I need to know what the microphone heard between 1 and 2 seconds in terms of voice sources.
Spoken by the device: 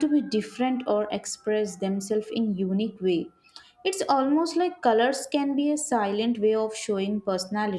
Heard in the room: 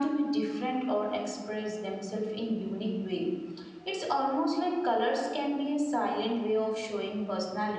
echo only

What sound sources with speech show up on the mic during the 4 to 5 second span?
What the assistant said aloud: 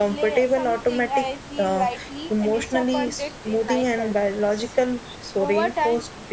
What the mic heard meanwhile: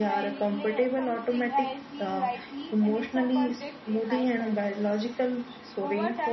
echo only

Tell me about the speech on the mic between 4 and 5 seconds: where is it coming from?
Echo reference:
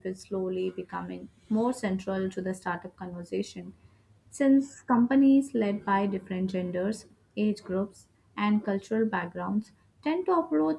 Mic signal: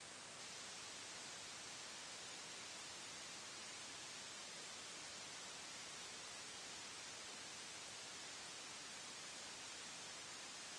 neither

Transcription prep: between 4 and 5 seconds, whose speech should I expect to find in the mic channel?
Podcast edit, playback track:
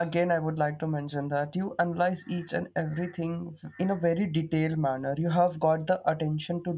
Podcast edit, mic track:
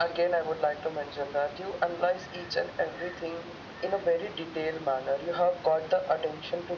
echo only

